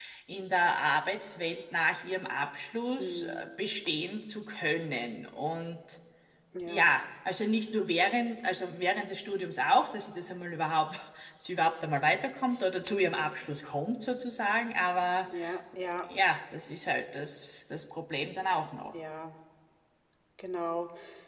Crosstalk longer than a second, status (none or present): none